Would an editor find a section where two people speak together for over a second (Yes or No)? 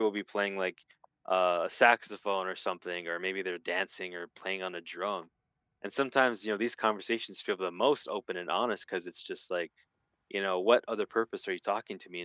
No